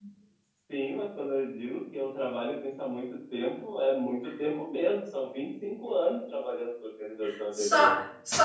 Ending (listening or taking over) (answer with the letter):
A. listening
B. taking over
B